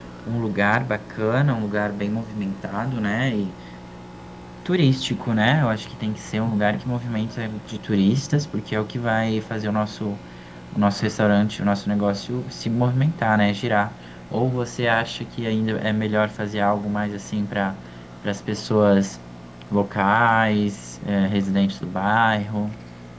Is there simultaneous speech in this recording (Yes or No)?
No